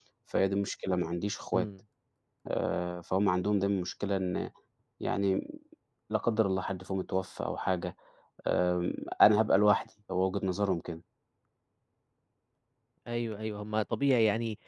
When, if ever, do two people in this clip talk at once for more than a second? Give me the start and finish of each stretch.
none

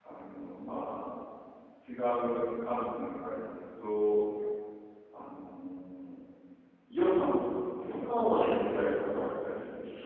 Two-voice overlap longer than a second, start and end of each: 7.8-9.2

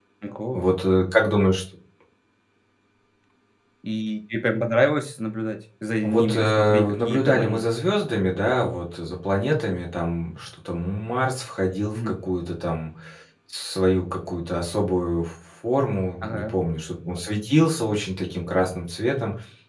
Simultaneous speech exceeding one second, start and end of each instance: 6.0-7.6

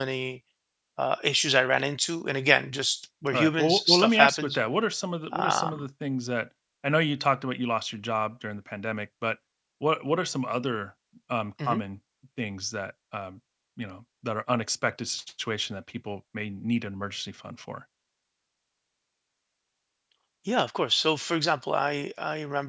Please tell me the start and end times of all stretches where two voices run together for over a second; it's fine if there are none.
3.3-4.6

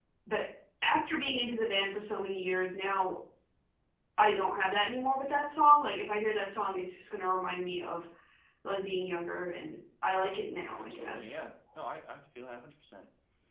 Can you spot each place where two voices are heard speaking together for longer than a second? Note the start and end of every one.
none

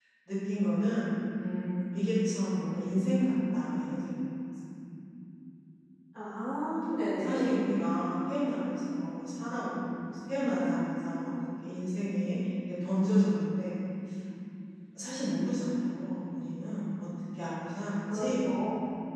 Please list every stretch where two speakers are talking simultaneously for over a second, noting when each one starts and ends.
none

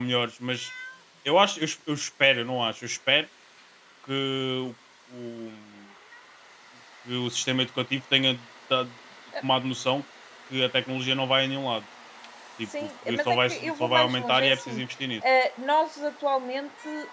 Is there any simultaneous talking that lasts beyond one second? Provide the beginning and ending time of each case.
12.8-14.8

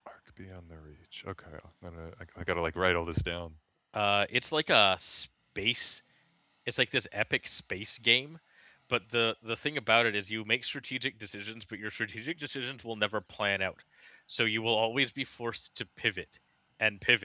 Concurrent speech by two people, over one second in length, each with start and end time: none

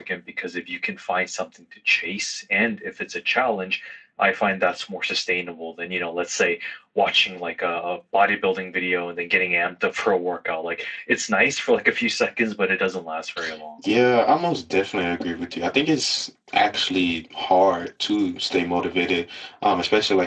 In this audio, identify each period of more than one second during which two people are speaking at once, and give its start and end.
none

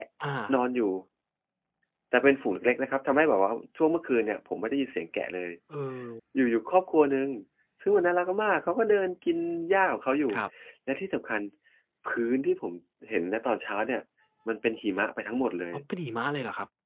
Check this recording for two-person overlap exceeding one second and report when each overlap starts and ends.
none

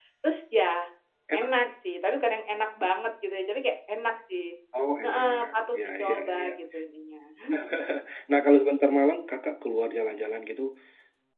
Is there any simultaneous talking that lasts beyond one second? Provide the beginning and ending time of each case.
5.0-6.6

